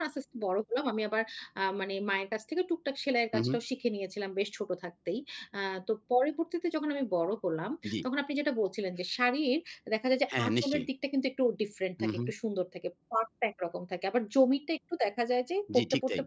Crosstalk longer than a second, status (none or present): none